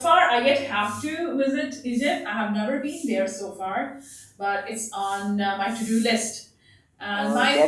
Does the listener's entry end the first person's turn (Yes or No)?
Yes